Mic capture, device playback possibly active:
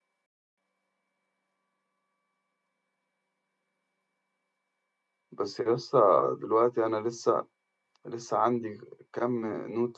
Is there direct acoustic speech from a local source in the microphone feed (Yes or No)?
Yes